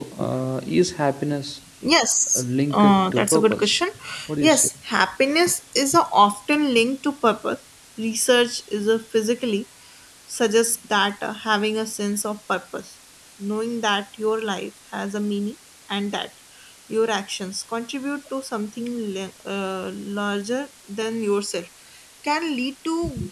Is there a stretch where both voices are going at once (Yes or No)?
Yes